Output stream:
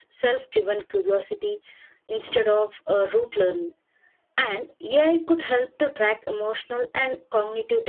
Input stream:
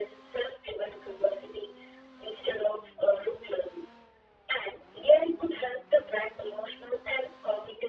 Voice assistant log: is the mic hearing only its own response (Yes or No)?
Yes